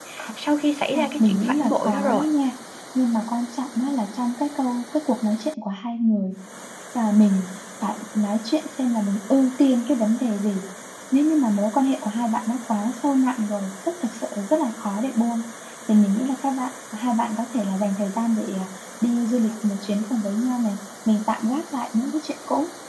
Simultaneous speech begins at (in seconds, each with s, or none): 0.9 s